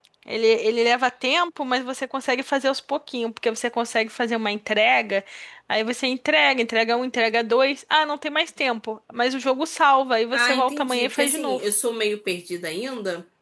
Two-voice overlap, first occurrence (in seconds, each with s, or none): 10.3 s